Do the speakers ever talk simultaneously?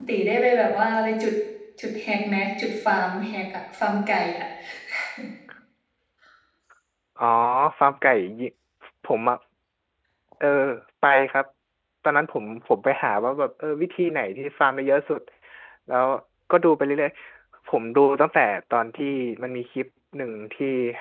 No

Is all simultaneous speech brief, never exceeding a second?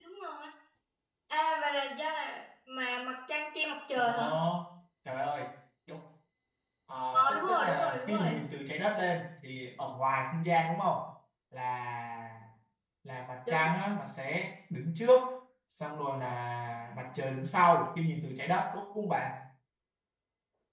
No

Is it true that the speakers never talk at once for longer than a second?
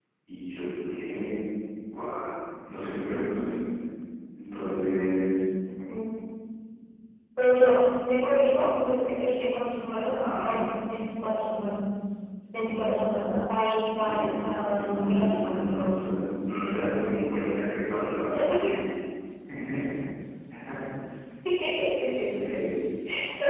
No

